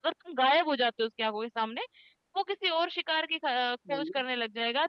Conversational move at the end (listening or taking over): listening